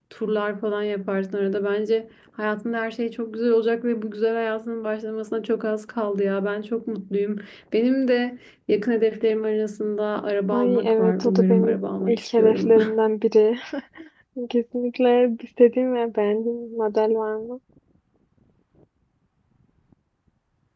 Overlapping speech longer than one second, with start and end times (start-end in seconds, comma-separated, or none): 10.5-12.7